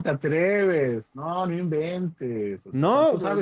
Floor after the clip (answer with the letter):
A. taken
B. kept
B